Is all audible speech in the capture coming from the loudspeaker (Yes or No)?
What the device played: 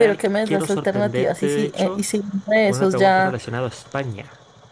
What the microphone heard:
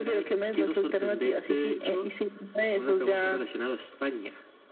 Yes